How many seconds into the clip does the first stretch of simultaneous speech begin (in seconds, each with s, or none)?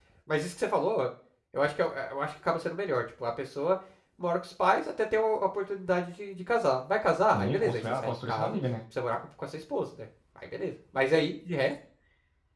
7.3 s